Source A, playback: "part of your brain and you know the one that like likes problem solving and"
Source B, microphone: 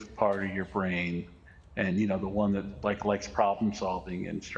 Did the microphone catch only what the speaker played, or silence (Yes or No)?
Yes